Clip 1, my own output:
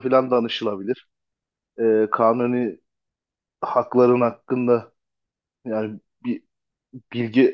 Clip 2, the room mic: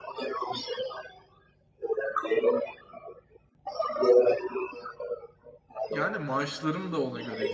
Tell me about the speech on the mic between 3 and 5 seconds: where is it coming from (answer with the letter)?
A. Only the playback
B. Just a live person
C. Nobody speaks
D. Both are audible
A